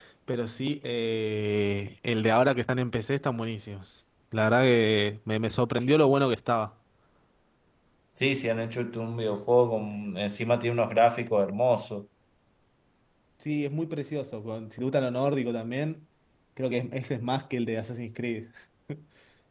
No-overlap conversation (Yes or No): Yes